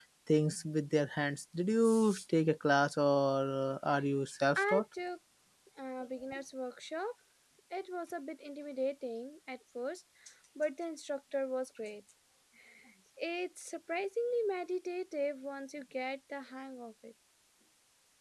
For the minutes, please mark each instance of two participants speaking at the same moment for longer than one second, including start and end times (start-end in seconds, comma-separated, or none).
none